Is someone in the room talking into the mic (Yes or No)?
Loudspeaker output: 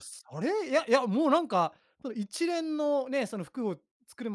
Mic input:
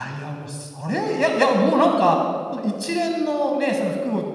No